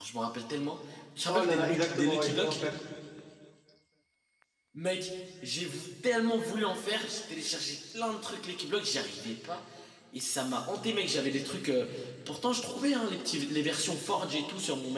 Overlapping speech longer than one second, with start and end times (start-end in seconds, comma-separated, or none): 1.3-2.6